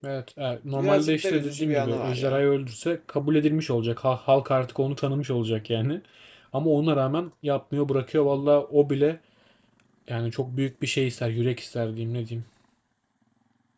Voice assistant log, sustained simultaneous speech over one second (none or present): present